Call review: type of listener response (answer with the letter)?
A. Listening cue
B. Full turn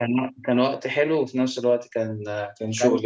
B